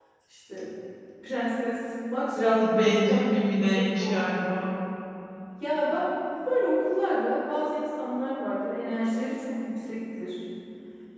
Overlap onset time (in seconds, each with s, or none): 2.3 s